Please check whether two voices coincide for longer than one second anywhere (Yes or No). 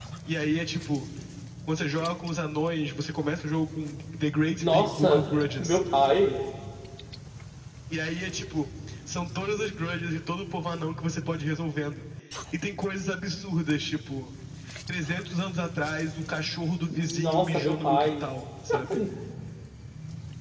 Yes